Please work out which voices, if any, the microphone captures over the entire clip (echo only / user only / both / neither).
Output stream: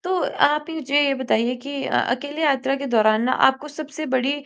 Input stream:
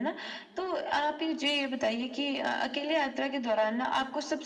echo only